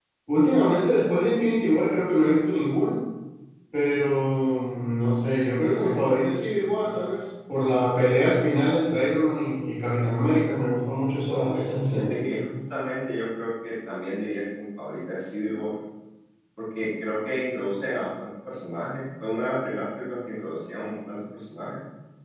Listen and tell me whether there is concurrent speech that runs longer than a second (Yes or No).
No